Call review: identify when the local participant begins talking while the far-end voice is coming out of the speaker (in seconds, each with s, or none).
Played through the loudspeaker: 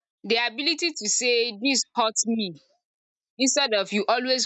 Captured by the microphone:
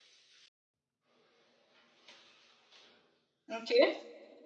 3.5 s